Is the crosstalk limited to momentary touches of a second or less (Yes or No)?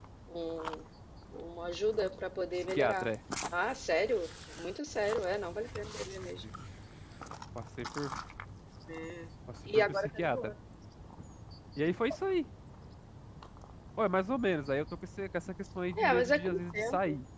No